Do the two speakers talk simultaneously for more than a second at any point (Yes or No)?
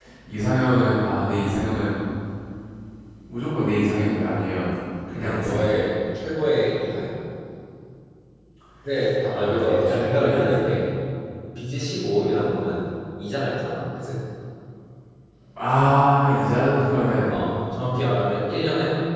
Yes